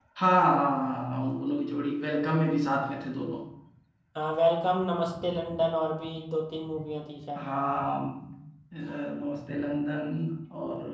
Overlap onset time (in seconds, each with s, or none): none